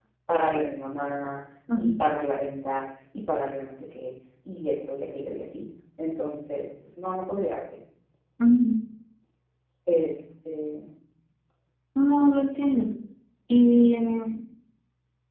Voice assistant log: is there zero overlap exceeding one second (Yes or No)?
Yes